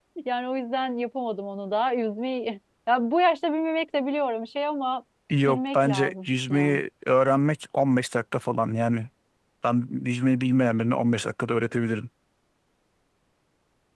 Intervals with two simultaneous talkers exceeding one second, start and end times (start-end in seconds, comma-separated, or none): 5.5-6.8